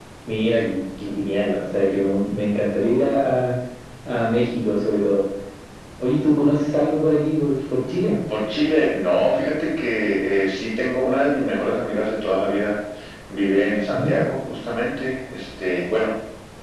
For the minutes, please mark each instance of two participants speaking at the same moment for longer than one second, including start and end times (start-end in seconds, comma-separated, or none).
none